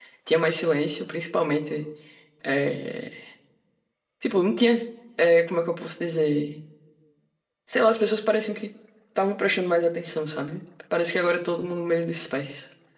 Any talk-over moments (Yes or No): No